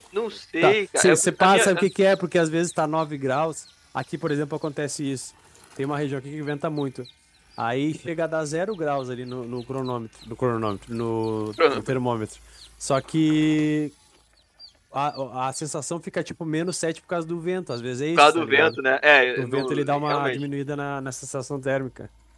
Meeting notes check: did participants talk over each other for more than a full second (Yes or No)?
Yes